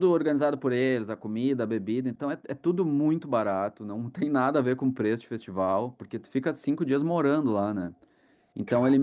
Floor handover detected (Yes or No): No